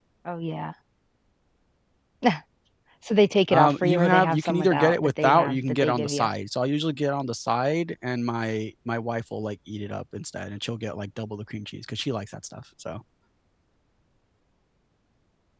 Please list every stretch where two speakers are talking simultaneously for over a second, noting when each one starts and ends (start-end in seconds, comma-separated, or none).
3.5-6.3